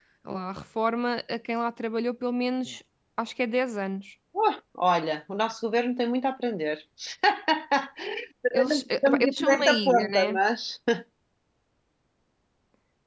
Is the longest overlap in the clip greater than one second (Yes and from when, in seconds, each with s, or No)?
Yes, from 8.5 s